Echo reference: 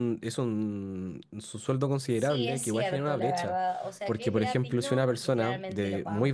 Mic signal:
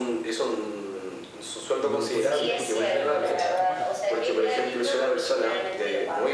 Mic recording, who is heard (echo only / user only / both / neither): both